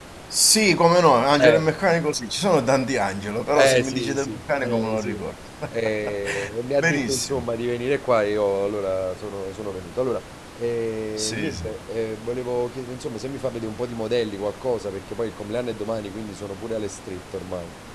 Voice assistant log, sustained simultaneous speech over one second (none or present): present